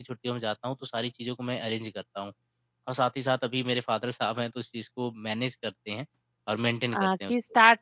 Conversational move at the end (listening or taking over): taking over